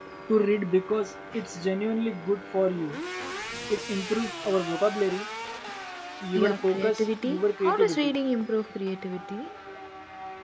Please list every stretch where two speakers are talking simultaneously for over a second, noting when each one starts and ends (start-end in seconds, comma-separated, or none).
6.3-8.1